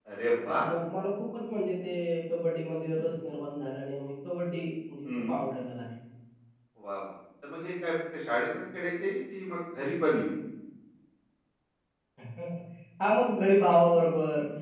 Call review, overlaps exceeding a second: none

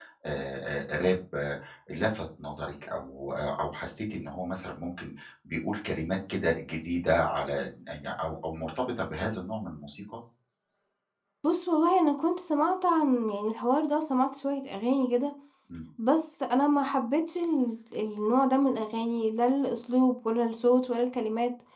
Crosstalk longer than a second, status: none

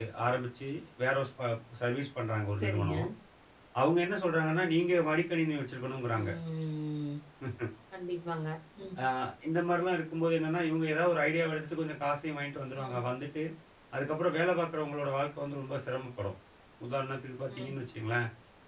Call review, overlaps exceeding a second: none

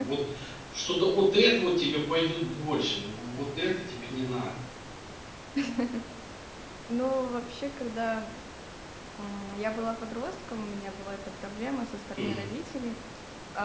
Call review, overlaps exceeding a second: none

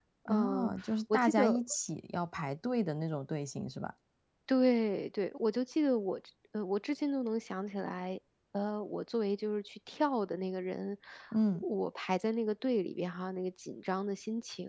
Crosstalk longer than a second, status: none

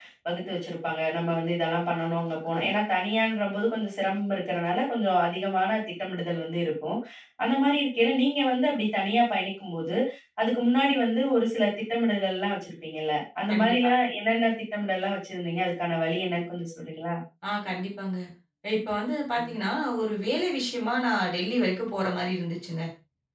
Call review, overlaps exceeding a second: none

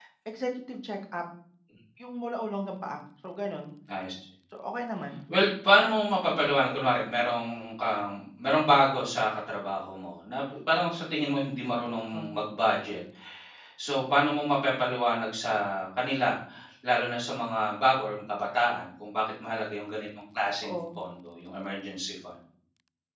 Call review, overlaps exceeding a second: none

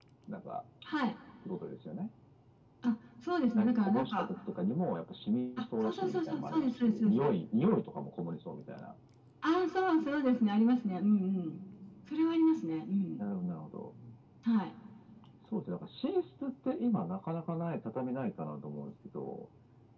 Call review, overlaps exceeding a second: present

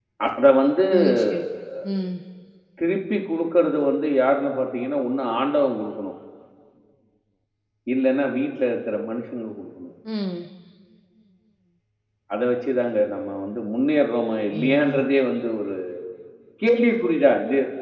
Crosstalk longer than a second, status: none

